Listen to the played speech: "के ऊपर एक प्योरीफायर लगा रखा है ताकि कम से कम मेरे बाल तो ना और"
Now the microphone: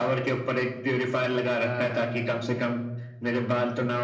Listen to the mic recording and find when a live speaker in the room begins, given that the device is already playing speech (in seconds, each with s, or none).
1.6 s